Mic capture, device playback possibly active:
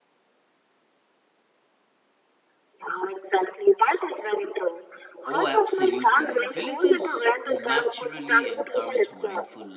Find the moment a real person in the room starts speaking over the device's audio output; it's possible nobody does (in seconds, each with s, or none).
5.2 s